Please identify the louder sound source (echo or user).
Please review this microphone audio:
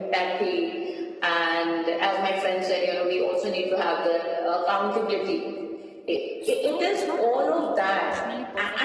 echo